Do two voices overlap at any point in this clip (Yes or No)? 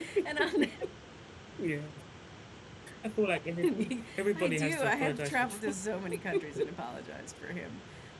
Yes